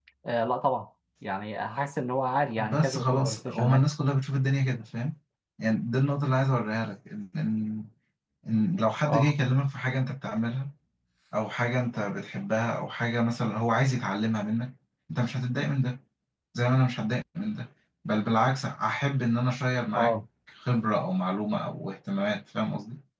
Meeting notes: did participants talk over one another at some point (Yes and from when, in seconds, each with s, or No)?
Yes, from 2.6 s